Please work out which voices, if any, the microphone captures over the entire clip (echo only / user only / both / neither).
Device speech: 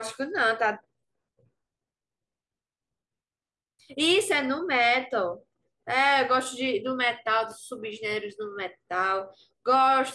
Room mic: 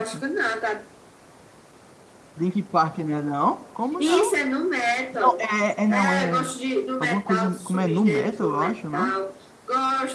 both